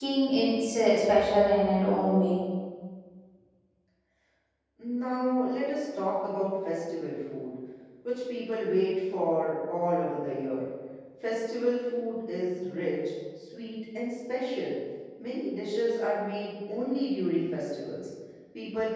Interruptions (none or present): none